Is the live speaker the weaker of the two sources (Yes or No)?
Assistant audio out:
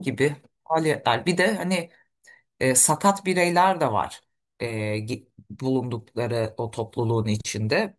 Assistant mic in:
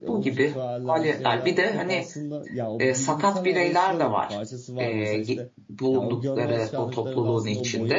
Yes